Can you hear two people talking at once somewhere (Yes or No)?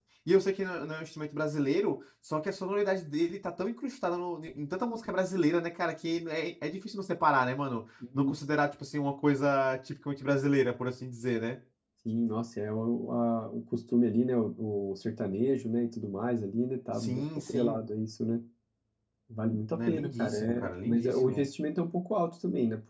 Yes